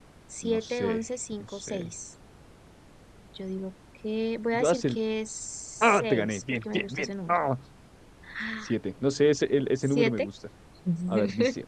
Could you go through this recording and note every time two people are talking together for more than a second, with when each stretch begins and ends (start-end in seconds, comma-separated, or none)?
5.8-7.4